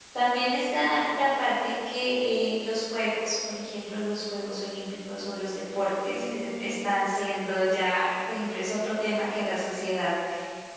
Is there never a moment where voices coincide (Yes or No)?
No